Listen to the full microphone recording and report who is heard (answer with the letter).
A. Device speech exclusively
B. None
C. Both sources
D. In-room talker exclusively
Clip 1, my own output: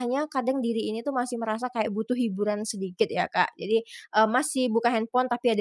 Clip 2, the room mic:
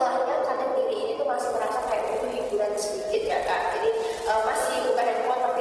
A